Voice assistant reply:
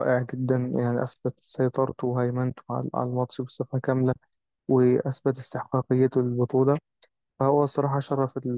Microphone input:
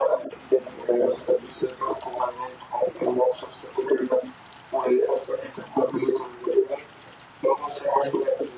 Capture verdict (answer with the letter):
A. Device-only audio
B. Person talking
A